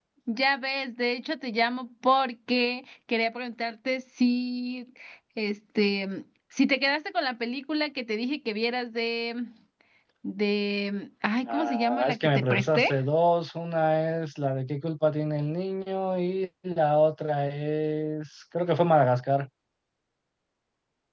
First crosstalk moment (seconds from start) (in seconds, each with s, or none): 11.5 s